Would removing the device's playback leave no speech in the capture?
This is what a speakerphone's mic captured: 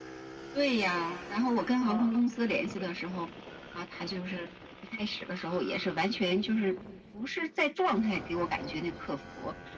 No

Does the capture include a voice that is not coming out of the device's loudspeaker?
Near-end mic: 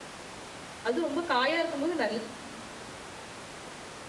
Yes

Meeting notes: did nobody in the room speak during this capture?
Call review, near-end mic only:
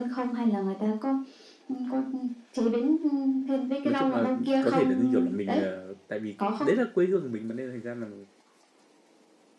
No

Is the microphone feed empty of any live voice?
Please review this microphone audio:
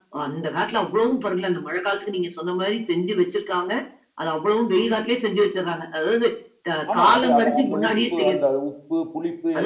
No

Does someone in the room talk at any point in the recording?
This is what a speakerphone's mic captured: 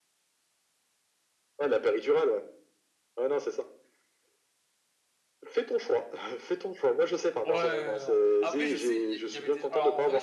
Yes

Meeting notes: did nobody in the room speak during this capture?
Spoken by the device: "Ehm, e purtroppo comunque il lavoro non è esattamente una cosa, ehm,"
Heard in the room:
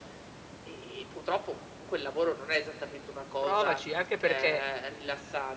No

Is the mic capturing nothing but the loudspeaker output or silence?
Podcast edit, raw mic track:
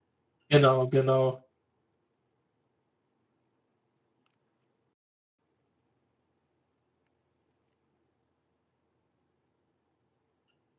No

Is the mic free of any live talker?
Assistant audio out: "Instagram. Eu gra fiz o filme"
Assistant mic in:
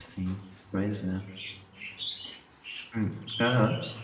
No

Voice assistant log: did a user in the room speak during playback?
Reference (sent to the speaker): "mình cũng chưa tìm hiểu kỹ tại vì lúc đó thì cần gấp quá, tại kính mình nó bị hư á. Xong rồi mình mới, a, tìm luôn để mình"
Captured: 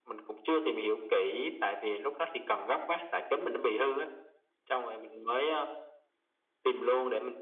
No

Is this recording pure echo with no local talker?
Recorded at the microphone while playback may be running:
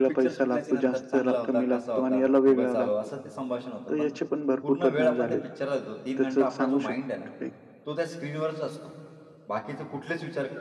No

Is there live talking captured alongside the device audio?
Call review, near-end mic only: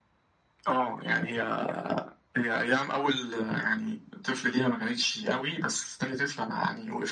No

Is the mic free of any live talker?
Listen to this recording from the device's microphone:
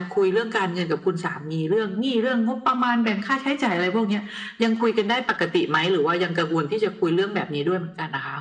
Yes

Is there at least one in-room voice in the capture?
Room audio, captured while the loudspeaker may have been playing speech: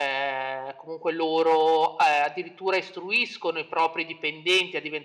No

